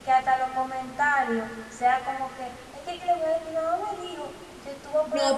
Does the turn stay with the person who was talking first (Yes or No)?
No